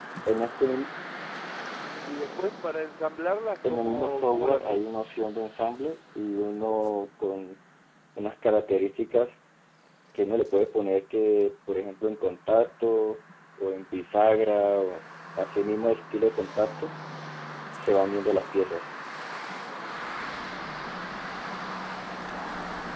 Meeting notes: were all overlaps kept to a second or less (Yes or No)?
No